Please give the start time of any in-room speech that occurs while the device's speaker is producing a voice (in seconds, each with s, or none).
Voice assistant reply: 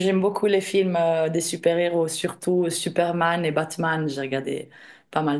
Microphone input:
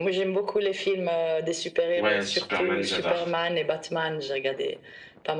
1.9 s